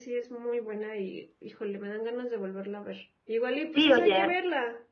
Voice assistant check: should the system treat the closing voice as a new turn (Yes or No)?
Yes